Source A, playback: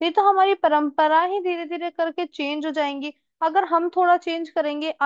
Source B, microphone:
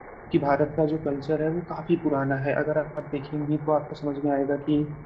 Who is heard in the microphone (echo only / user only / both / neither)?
user only